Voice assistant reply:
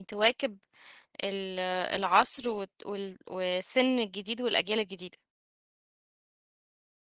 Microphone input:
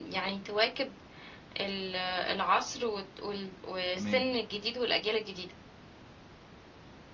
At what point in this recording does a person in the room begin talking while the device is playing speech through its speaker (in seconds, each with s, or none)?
3.9 s